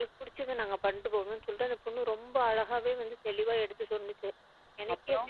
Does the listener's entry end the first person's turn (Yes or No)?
No